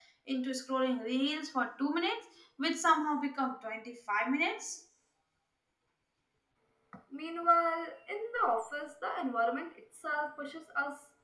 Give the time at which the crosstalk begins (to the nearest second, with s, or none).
none